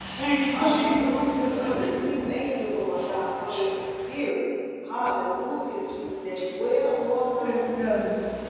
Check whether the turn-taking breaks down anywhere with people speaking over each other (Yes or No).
Yes